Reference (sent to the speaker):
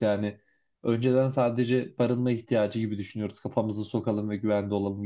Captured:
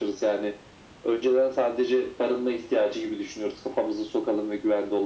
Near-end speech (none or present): none